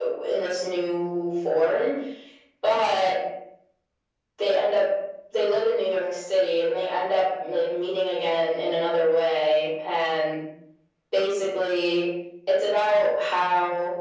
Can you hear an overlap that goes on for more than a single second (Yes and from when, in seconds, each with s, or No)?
No